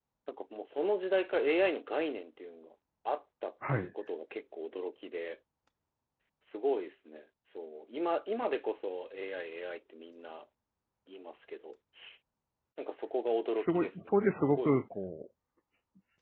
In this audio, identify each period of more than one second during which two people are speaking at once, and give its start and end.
13.5-14.7

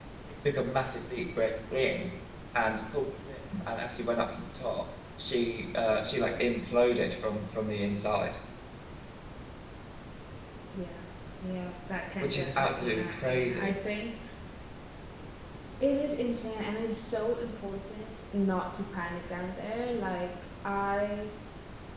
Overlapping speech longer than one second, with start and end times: 12.2-13.8

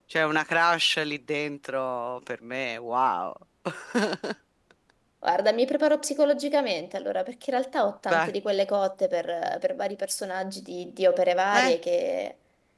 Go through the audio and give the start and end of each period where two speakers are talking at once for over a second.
none

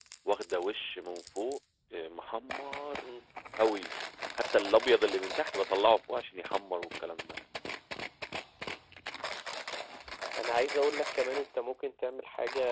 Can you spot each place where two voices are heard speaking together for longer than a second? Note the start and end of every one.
none

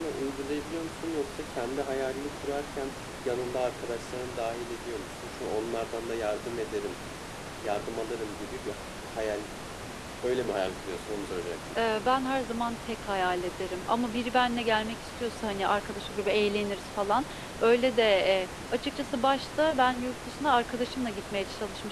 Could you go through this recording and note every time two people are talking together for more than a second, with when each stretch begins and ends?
none

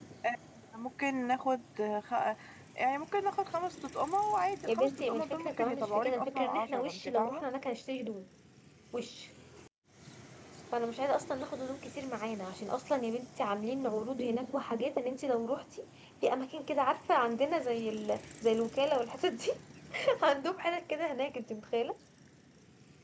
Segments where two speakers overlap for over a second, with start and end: 4.7-7.4

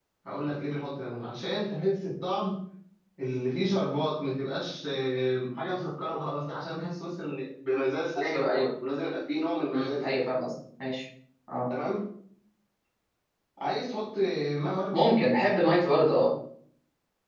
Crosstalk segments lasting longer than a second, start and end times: none

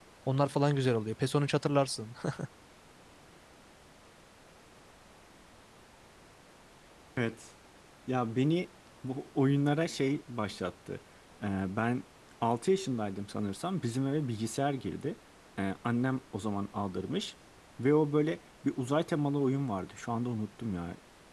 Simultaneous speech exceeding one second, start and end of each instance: none

